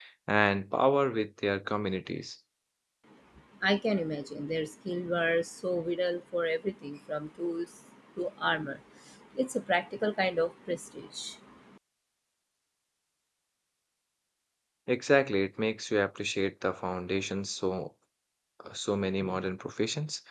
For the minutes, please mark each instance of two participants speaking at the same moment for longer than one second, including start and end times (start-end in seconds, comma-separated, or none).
none